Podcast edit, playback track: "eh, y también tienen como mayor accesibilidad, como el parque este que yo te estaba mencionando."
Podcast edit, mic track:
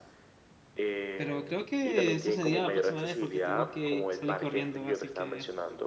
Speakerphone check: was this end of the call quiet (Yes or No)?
No